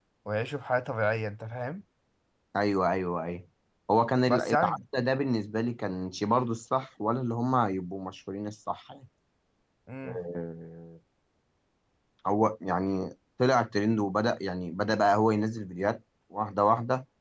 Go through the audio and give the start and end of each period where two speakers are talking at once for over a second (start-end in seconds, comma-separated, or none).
none